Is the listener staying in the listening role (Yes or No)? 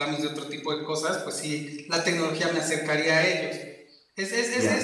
Yes